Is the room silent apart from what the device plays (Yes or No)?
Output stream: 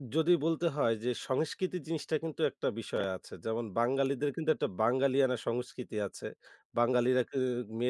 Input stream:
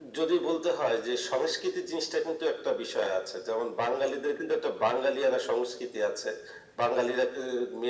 Yes